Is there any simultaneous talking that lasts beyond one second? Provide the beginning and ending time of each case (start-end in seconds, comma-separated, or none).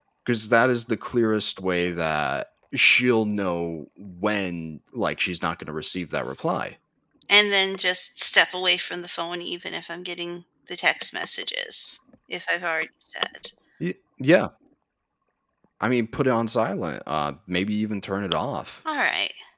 none